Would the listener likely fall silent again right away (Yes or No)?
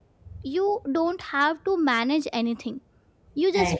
Yes